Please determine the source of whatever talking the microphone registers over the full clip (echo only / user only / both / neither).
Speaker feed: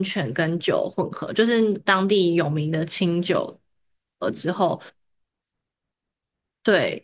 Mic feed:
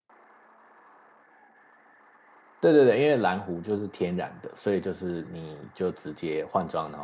user only